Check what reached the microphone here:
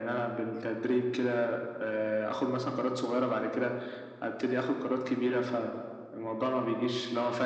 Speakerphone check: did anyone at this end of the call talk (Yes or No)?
No